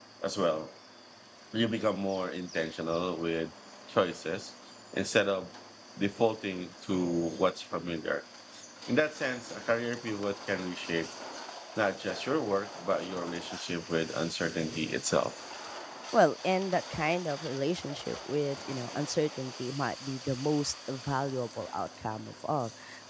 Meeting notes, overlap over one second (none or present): none